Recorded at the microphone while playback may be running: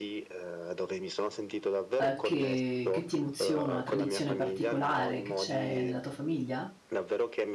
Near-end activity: present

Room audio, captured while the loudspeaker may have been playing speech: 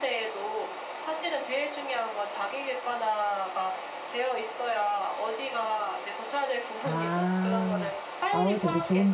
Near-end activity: present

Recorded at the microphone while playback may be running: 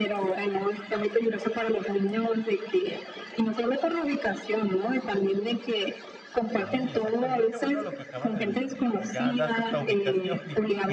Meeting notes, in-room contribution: present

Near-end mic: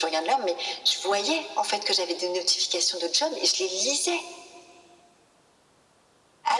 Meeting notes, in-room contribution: none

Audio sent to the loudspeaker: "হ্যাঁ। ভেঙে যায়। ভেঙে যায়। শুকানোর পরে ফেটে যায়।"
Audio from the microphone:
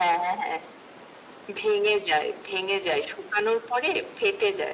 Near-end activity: none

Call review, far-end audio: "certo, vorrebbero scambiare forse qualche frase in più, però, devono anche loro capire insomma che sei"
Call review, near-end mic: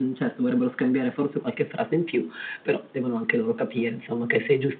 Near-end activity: none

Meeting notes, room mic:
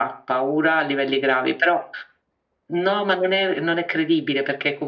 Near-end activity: none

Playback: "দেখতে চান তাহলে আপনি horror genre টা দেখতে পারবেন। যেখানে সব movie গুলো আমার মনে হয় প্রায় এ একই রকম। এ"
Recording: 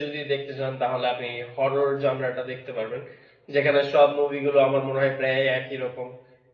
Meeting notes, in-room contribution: none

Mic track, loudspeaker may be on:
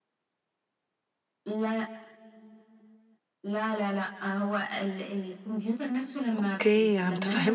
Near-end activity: present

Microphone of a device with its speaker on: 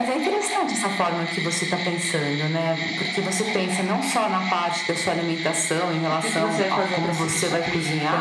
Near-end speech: present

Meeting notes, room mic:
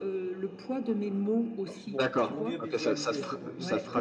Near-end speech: present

